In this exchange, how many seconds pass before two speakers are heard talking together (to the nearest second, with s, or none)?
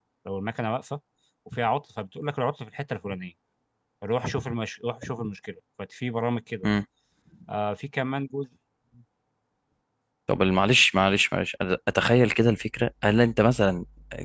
none